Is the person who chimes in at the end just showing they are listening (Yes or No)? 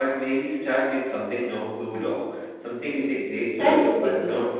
No